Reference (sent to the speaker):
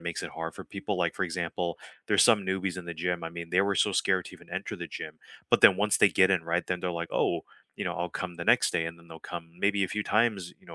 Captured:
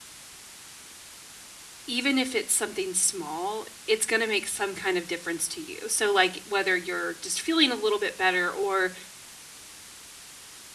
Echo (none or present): none